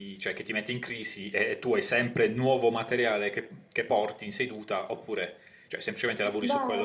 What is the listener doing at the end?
taking over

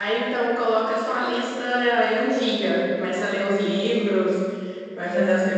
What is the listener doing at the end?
listening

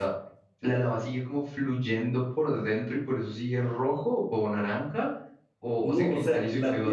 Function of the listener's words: taking over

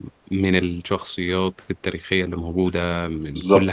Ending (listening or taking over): taking over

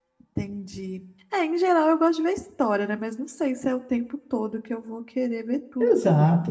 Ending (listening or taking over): taking over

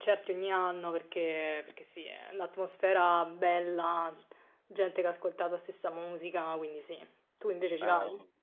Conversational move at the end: taking over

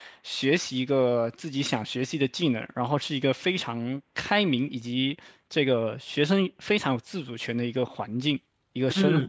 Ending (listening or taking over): taking over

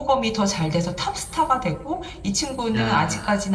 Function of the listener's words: listening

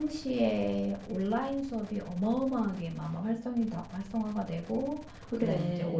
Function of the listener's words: listening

